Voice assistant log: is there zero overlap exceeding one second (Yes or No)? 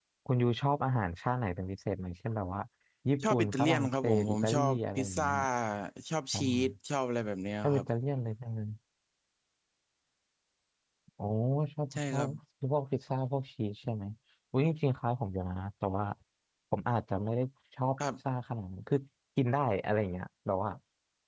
No